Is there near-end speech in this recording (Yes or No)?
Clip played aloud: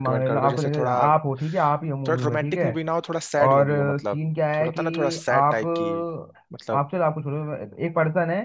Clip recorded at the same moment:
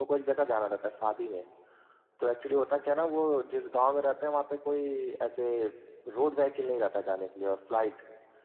Yes